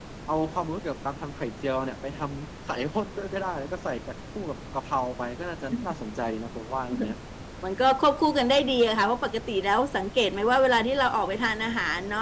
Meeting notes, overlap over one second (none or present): none